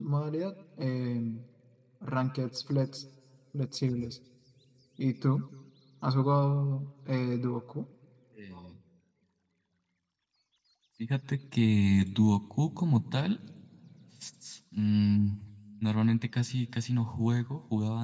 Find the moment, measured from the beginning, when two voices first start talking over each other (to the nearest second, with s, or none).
none